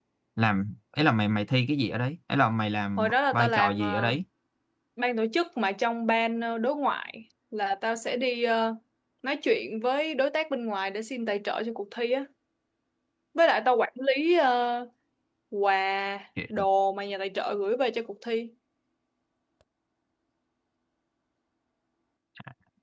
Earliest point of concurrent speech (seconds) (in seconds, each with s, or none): 3.0 s